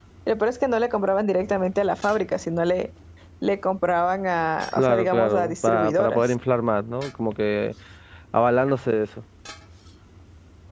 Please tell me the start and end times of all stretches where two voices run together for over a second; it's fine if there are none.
4.7-6.3

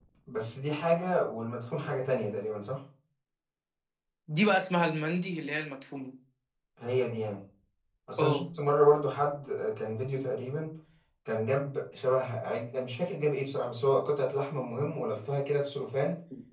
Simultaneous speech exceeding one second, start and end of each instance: none

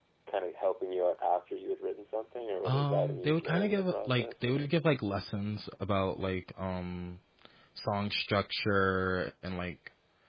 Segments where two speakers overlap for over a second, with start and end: 2.6-4.7

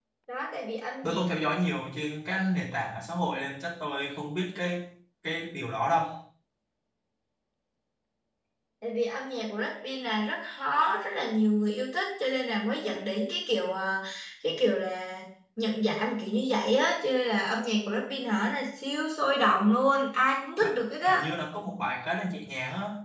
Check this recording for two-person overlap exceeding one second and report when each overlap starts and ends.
none

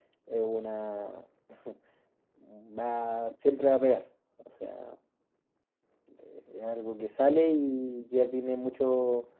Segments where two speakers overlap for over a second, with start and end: none

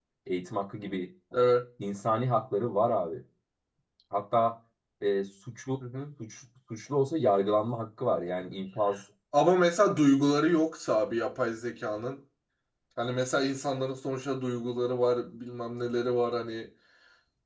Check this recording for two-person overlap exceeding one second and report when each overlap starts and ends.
none

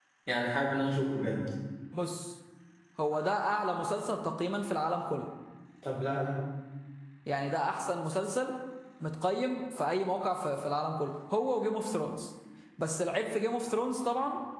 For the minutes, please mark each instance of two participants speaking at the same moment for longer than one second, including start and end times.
none

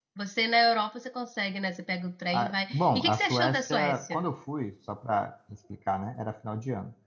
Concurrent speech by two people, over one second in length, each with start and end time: 2.3-4.2

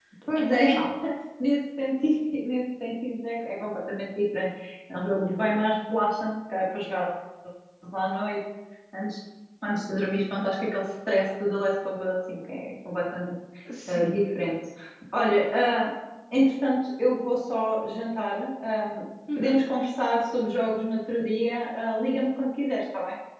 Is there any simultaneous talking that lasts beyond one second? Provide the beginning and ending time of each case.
none

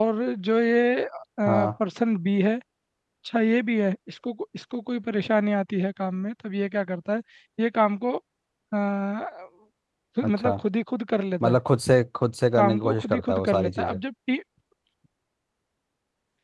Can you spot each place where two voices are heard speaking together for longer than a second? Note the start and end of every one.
12.6-14.0

